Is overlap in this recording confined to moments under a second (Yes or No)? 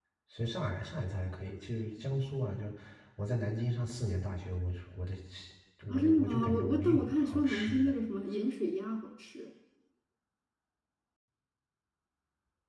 No